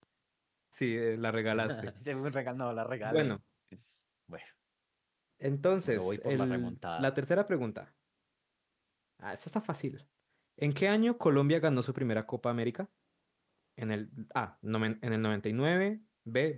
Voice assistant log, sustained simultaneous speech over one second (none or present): present